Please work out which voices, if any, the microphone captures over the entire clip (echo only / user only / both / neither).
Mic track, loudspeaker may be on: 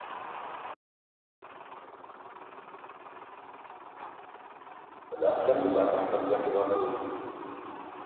user only